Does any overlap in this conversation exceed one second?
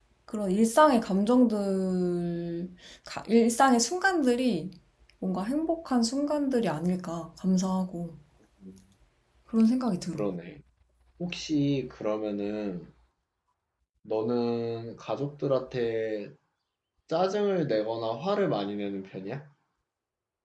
No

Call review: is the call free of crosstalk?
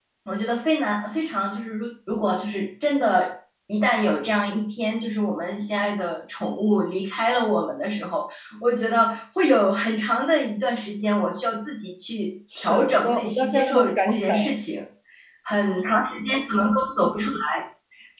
No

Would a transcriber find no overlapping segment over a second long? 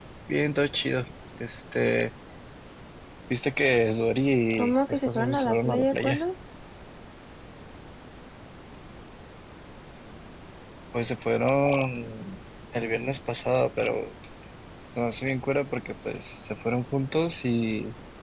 No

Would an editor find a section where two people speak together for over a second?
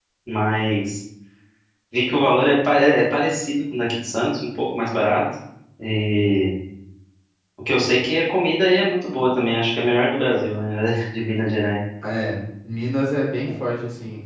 No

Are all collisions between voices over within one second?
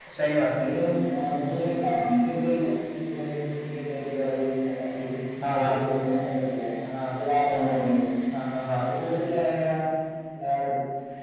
Yes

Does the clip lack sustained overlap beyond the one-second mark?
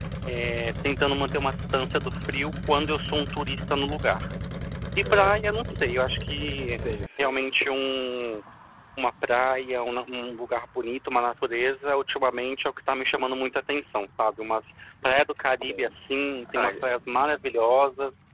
Yes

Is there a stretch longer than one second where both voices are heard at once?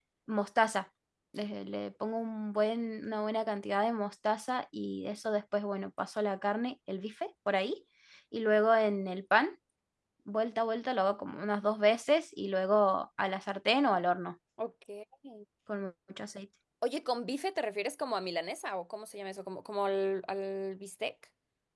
No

